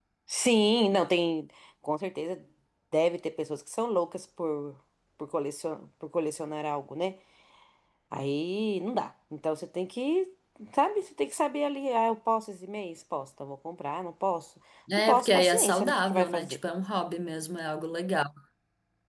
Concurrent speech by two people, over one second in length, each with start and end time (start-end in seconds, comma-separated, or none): 15.0-16.6